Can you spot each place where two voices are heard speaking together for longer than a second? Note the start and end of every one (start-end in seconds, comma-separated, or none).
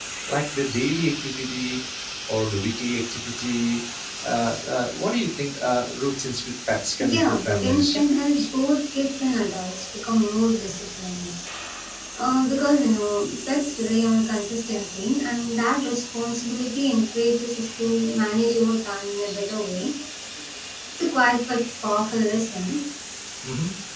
7.1-8.4